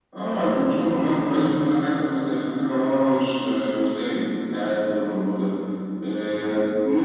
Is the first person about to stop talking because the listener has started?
No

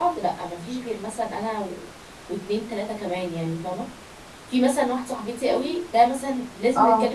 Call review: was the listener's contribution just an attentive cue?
Yes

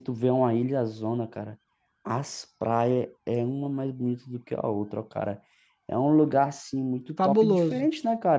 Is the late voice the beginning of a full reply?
No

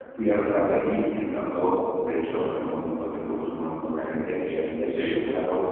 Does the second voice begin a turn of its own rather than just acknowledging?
No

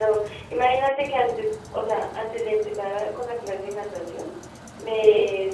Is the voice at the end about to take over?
No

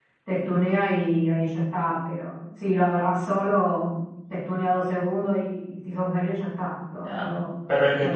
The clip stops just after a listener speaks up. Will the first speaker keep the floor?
No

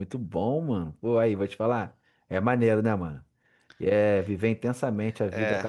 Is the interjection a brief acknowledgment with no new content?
No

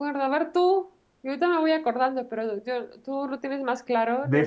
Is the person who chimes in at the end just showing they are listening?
No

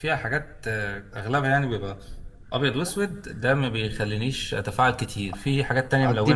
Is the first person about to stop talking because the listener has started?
Yes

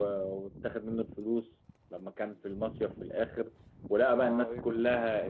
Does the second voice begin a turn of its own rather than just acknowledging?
No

